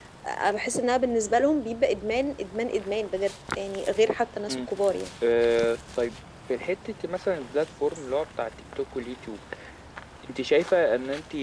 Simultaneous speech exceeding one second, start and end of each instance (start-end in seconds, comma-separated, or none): none